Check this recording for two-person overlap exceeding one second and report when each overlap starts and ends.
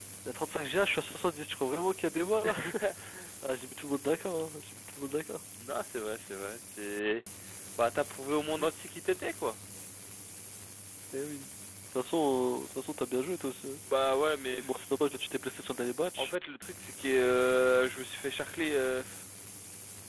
none

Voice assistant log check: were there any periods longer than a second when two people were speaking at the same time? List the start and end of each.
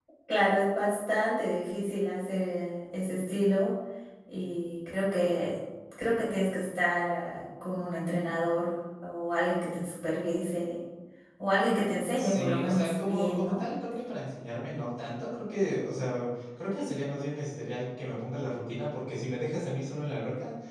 12.2-13.6

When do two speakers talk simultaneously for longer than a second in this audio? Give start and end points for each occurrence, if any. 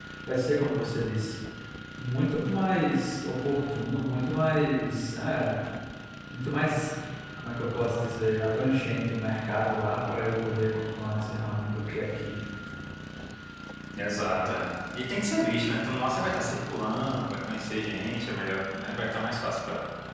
none

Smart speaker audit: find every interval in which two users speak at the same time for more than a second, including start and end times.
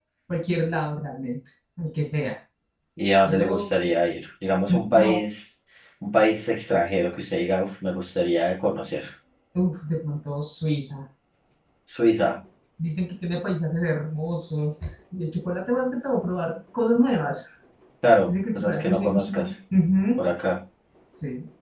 18.3-19.5

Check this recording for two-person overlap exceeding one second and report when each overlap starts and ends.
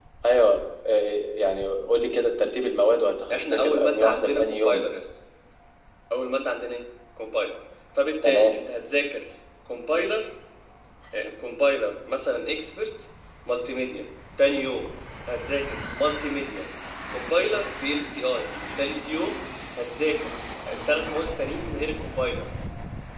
3.3-4.8

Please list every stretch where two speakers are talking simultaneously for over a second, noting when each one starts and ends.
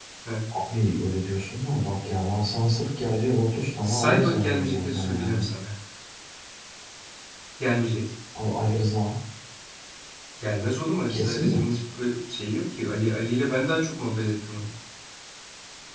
3.8-5.4

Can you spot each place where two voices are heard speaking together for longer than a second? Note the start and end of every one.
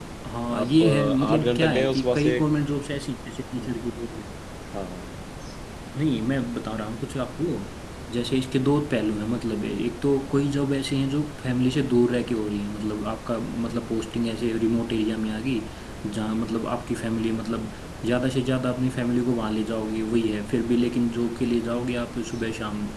0.6-2.4

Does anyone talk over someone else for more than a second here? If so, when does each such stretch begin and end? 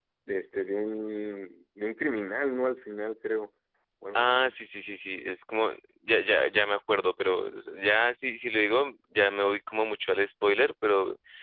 none

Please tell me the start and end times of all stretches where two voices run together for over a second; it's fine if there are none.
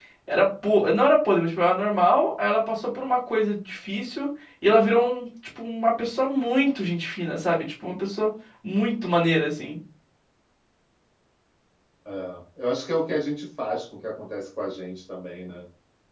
none

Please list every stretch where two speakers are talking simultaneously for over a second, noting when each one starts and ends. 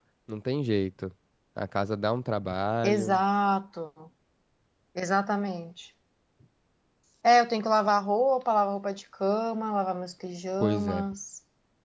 none

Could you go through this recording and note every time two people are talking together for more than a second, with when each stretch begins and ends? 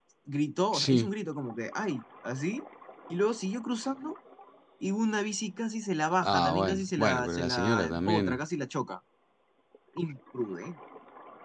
6.2-8.4

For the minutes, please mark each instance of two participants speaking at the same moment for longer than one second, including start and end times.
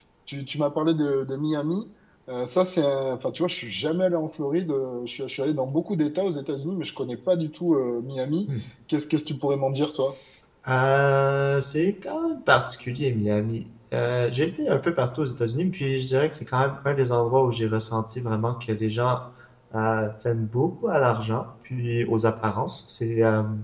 none

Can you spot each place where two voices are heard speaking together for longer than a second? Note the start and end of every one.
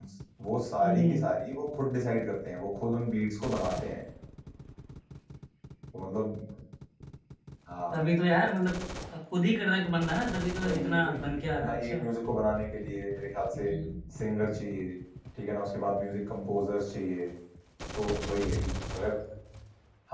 10.6-12.0

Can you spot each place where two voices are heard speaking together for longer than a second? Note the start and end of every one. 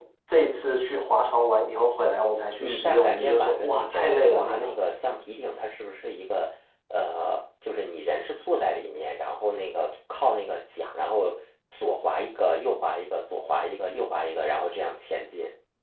2.6-4.7

